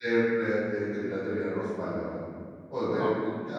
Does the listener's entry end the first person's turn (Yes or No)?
No